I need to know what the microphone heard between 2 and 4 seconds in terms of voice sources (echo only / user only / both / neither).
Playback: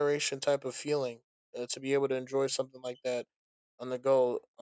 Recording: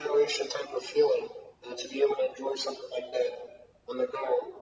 echo only